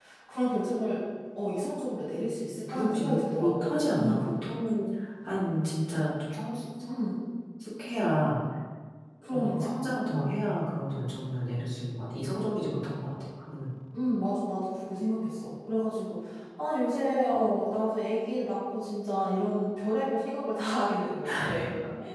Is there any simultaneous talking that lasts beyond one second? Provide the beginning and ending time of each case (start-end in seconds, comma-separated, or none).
2.7-4.3